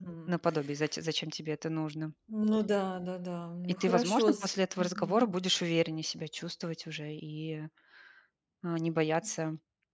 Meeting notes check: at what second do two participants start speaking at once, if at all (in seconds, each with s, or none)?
3.8 s